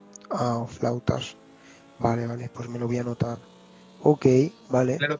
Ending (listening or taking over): taking over